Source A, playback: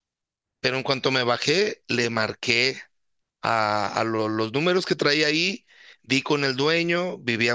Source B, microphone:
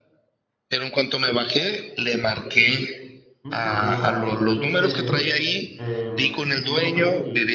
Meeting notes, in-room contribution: present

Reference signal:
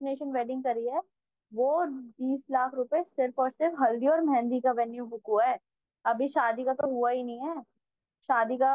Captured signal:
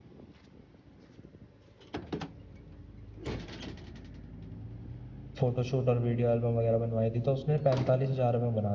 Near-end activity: present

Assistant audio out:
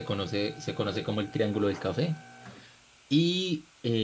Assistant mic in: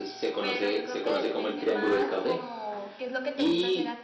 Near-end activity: present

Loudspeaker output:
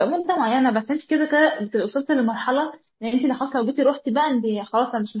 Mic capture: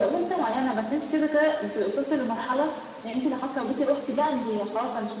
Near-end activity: none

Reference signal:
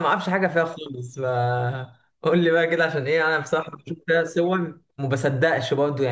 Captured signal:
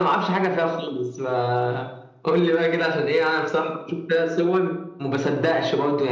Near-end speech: none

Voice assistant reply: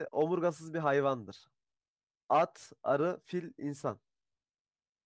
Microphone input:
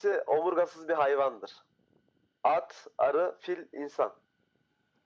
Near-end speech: none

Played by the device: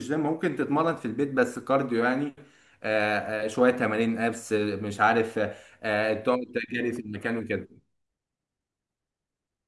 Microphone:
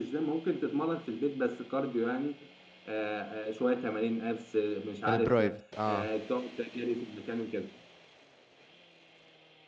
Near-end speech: present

